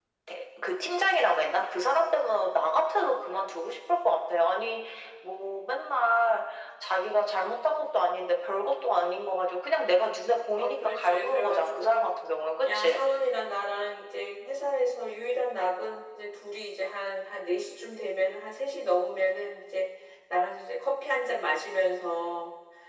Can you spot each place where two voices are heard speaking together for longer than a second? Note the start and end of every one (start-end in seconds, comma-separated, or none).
10.6-12.1